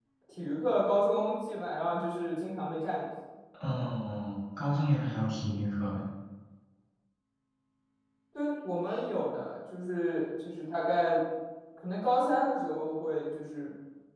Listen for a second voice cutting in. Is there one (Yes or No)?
No